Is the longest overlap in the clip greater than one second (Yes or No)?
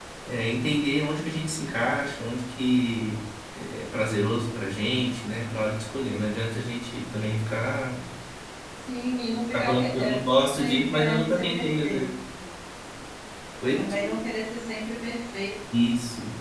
Yes